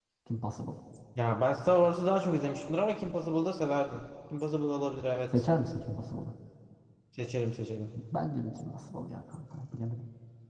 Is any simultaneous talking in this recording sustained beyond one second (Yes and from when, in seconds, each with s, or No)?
No